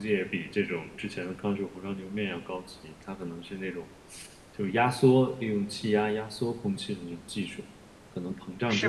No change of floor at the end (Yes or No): Yes